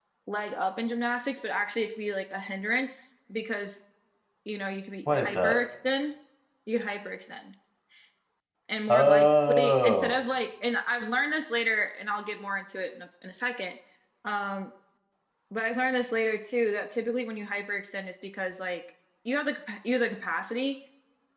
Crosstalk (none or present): present